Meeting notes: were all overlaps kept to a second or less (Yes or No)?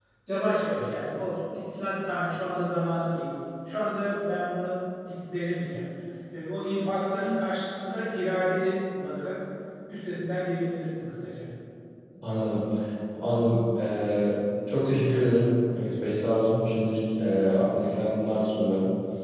Yes